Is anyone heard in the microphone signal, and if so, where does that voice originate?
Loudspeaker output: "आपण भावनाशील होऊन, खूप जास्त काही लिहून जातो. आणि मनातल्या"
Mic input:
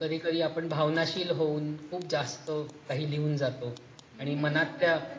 both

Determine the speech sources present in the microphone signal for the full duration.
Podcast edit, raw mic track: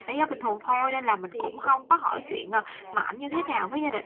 both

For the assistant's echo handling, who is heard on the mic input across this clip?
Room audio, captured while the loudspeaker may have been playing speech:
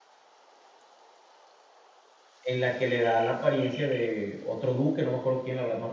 user only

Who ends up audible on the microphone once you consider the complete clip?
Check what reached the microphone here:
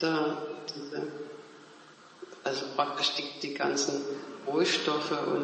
echo only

